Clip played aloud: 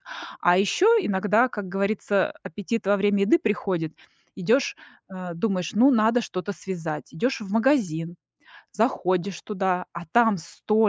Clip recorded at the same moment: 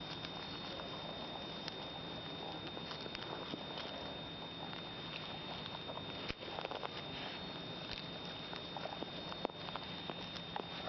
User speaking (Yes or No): No